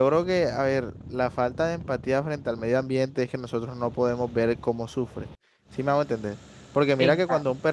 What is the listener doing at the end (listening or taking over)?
listening